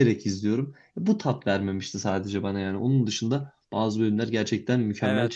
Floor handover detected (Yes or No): Yes